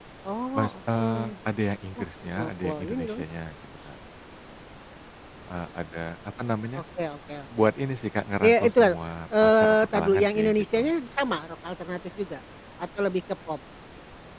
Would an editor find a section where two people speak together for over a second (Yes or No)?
Yes